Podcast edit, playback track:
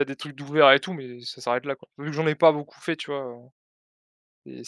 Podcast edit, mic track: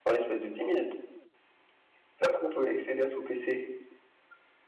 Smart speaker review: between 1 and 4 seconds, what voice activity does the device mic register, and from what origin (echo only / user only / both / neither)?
user only